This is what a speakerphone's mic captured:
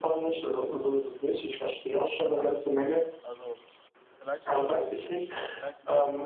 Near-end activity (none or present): present